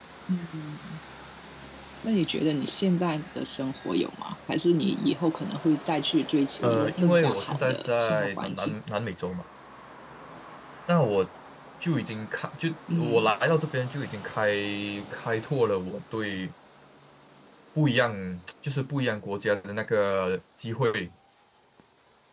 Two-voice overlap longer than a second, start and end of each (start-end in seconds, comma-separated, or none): 6.6-8.8